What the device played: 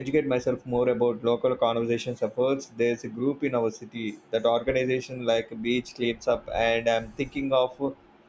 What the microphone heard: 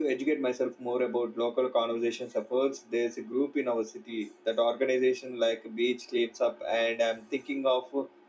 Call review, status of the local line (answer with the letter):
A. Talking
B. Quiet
B